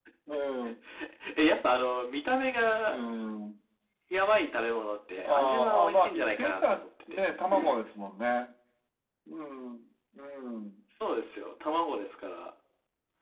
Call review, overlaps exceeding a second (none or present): present